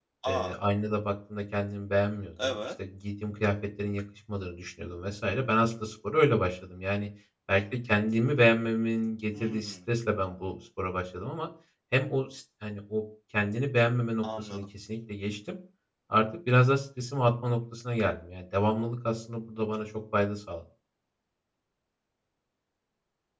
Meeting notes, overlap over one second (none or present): none